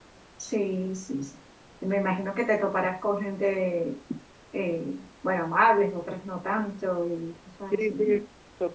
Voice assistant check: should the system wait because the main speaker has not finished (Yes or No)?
No